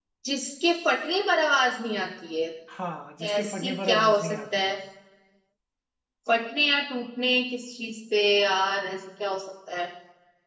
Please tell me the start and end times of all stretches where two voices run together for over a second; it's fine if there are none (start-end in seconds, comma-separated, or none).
3.4-4.7